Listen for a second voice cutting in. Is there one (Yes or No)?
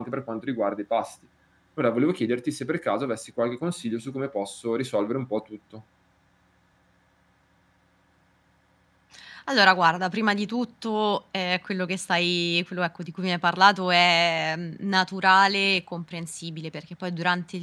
No